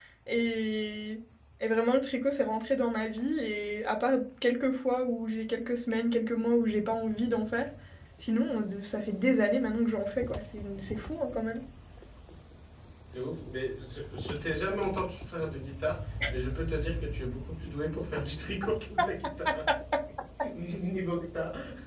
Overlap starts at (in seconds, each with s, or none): none